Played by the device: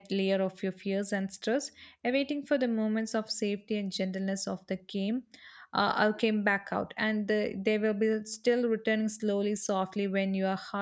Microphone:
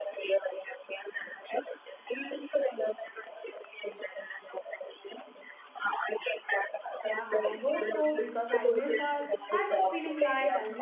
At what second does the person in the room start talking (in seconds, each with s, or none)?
7.0 s